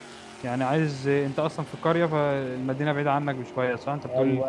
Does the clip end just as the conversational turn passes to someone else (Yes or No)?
Yes